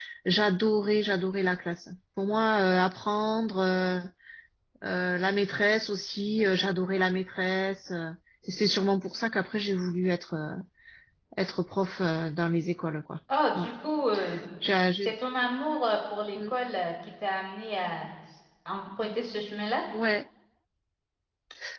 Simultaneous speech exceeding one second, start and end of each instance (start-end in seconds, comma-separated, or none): none